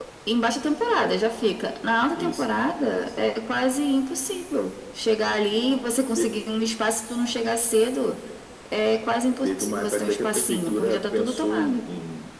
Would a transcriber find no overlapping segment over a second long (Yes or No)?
No